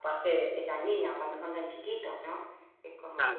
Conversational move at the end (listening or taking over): taking over